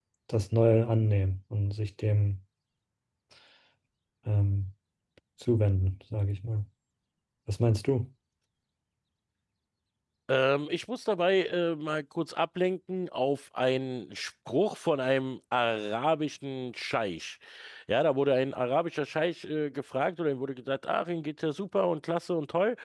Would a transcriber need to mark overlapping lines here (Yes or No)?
No